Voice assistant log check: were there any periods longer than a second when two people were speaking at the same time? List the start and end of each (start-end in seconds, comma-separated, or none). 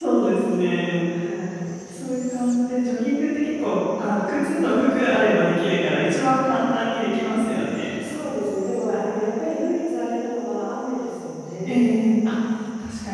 none